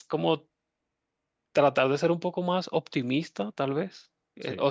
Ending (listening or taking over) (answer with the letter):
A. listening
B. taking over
A